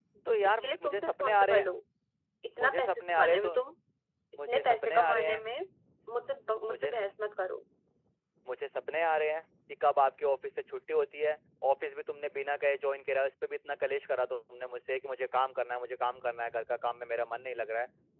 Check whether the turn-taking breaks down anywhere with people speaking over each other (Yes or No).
Yes